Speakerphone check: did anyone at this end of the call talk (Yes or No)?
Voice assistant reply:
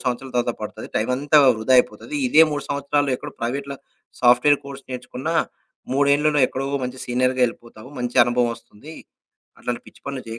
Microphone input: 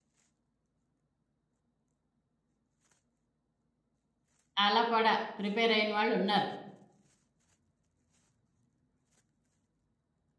Yes